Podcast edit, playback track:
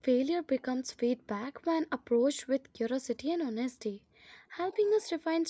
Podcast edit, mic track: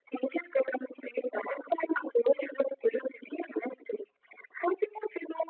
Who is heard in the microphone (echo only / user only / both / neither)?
echo only